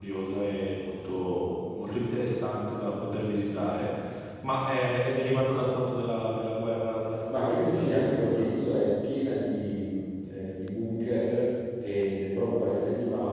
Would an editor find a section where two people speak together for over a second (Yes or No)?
Yes